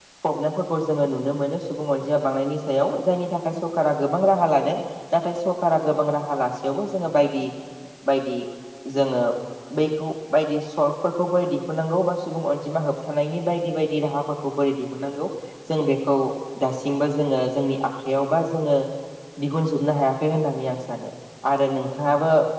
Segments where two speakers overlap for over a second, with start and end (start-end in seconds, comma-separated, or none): none